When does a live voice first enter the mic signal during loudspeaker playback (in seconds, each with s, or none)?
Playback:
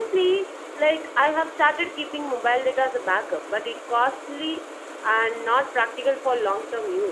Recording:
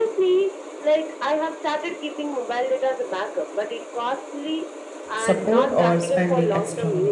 5.1 s